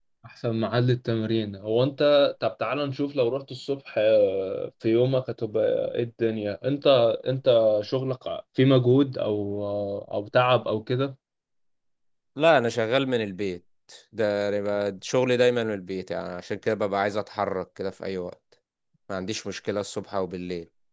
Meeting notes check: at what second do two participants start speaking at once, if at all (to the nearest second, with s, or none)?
none